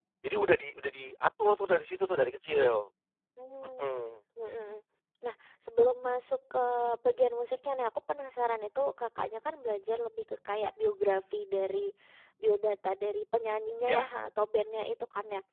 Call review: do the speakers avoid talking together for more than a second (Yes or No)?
Yes